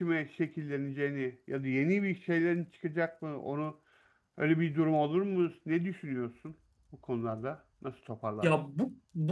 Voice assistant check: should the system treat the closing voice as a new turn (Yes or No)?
Yes